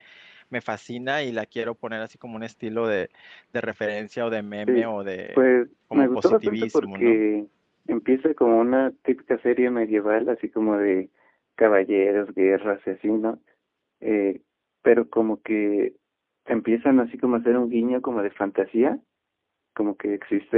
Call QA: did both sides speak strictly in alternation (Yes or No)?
No